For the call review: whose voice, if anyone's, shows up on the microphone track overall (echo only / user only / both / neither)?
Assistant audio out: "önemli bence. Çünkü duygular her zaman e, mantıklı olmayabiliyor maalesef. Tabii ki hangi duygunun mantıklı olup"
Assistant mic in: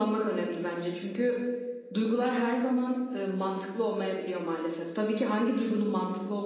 echo only